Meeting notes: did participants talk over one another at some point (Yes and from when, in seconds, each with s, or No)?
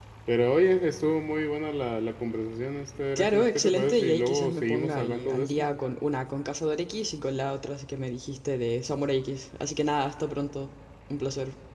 Yes, from 3.1 s